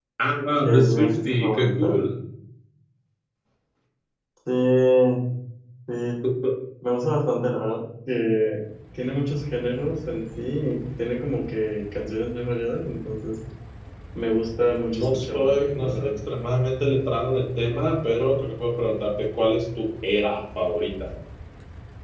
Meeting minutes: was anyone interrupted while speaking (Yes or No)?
Yes